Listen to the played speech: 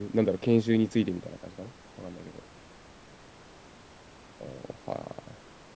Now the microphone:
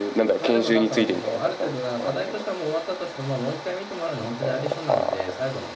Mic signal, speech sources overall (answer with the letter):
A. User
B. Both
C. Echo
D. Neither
B